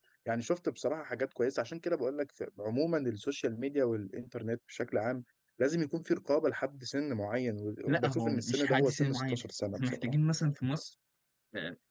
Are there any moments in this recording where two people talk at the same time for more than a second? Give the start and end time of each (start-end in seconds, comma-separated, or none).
7.9-9.4